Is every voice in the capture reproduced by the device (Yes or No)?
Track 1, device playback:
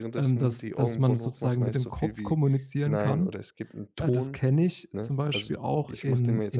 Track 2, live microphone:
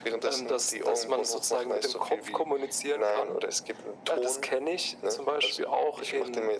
Yes